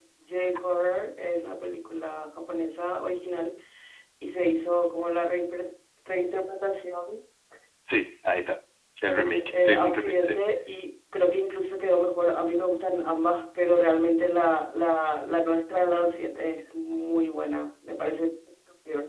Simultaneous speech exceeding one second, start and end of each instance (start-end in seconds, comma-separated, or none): 9.1-10.4